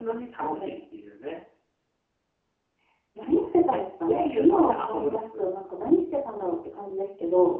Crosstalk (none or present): present